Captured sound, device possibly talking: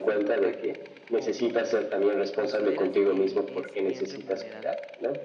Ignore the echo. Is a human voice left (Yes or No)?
Yes